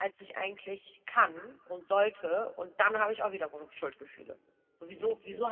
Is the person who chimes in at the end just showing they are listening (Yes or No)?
Yes